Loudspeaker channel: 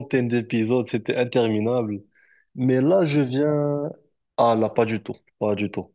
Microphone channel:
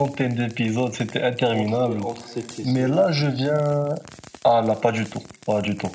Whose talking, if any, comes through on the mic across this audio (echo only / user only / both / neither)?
both